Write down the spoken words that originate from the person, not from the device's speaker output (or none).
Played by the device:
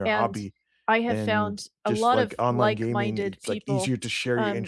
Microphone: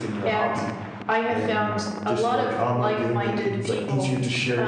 none